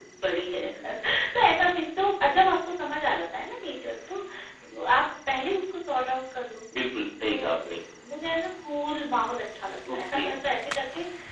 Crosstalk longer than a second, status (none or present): none